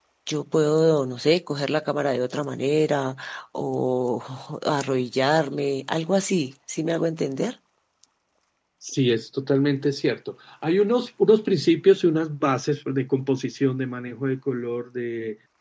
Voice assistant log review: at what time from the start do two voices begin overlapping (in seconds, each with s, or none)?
none